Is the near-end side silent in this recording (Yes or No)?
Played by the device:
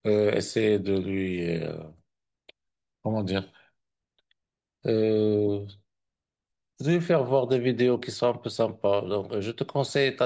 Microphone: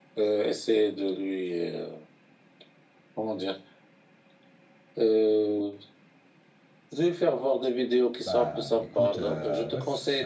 No